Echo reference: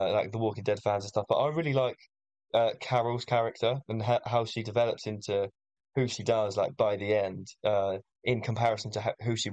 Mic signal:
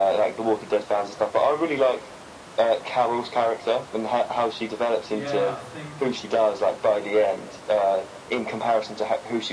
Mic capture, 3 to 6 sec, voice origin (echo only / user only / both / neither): both